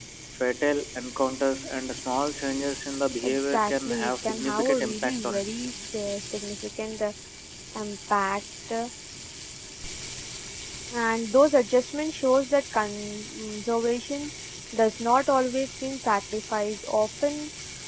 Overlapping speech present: Yes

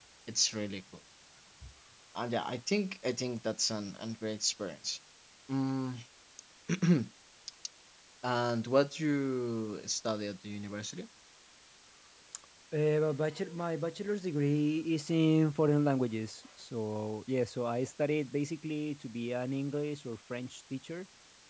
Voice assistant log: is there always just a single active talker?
Yes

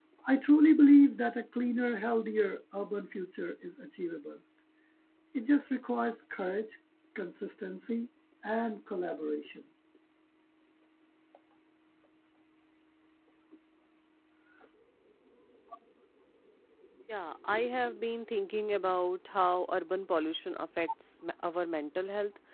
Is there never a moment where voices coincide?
Yes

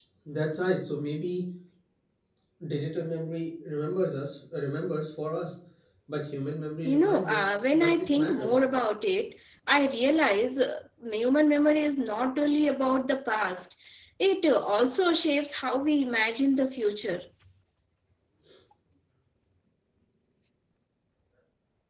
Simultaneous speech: Yes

